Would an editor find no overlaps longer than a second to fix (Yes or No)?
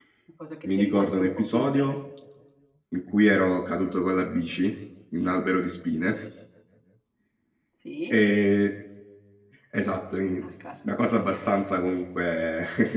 No